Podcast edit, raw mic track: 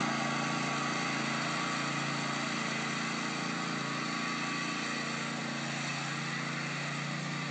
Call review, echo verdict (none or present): none